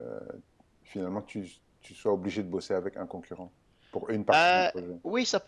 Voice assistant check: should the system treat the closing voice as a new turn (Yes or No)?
Yes